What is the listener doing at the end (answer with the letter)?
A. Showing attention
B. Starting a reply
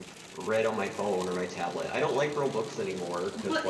B